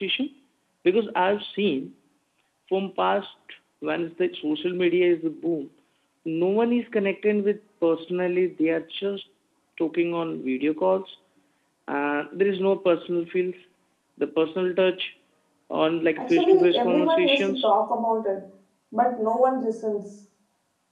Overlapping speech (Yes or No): Yes